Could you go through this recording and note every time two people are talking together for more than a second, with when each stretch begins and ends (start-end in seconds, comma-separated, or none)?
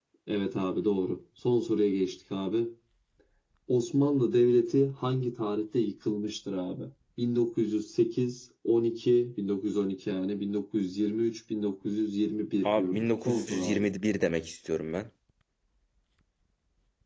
12.6-13.9